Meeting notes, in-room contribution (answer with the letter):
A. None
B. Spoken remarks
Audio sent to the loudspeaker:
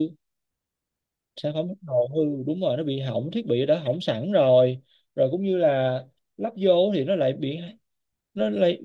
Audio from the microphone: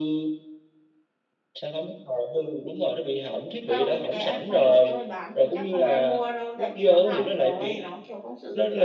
B